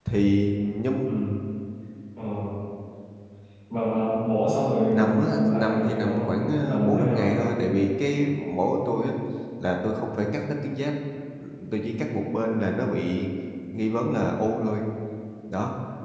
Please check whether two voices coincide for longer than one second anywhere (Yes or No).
Yes